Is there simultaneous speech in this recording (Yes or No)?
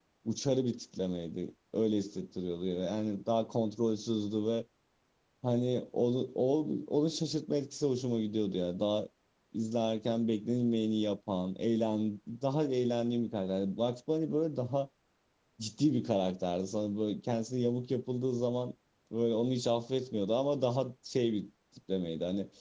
No